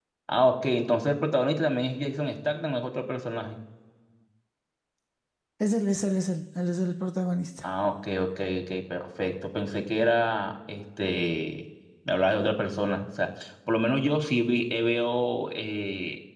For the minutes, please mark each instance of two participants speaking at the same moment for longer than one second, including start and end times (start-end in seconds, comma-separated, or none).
none